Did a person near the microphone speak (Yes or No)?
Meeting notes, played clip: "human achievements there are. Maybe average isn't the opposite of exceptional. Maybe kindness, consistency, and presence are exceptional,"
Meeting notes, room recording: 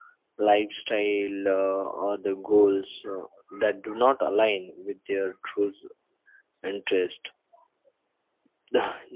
Yes